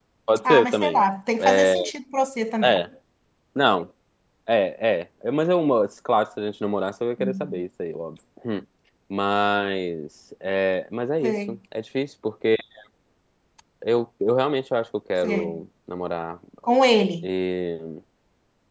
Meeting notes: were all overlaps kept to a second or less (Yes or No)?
Yes